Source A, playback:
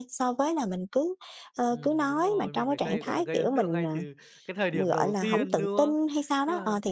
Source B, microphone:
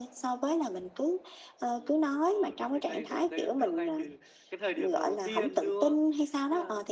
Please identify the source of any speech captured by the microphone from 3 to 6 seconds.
echo only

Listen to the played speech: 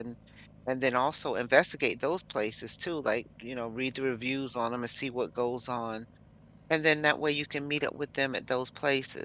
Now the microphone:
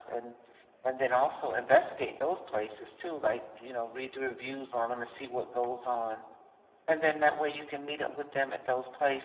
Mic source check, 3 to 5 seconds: echo only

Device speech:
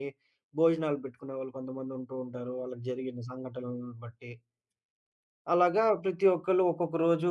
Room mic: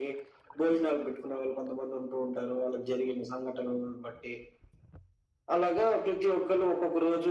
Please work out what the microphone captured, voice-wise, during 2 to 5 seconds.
echo only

